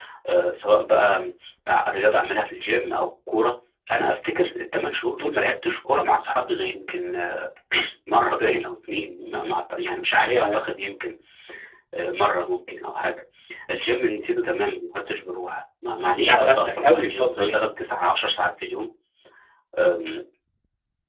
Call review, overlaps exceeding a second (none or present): present